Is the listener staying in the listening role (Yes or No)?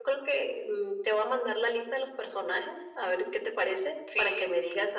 Yes